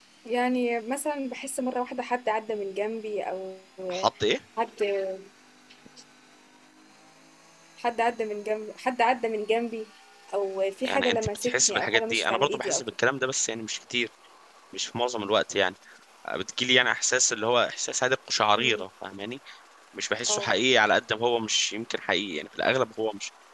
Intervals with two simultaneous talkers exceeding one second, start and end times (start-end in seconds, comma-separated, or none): 10.8-12.8